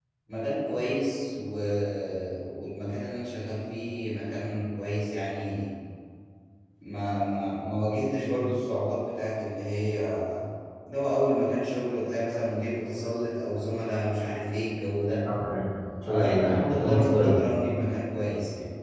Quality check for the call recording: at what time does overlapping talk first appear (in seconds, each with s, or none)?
16.1 s